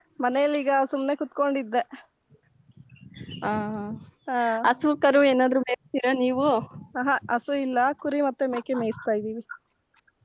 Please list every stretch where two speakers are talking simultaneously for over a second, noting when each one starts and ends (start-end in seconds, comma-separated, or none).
none